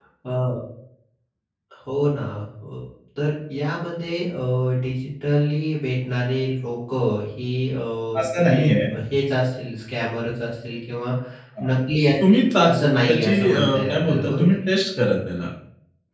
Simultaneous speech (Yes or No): Yes